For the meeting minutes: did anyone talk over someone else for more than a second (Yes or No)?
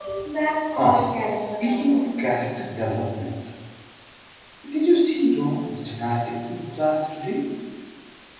Yes